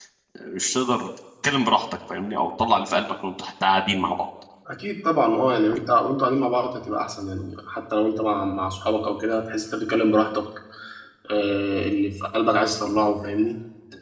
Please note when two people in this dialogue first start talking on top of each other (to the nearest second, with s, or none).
none